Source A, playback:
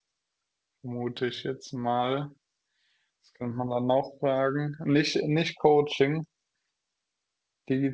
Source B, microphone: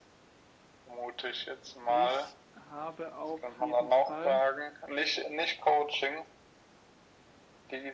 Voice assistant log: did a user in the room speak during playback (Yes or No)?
Yes